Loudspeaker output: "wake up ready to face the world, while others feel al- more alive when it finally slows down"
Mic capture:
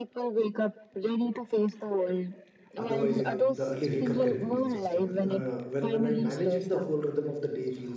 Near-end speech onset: 2.8 s

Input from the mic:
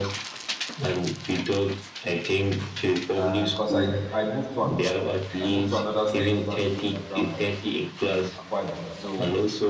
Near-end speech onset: 3.1 s

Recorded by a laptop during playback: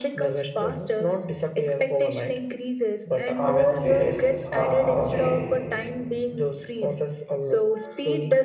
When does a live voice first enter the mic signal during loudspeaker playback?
3.3 s

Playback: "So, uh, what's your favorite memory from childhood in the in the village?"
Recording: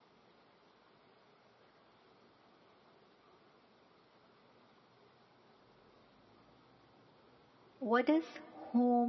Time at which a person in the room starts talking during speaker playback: 7.8 s

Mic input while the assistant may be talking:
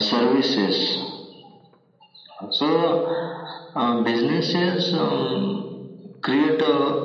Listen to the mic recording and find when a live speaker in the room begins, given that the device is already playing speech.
none

